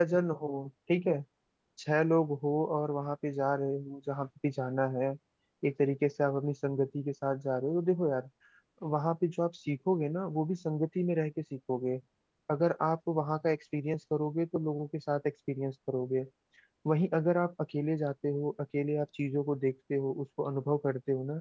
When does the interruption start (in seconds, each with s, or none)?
none